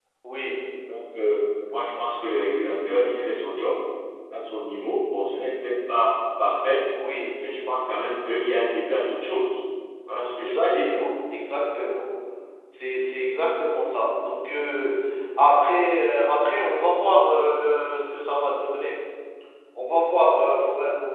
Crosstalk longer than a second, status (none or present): none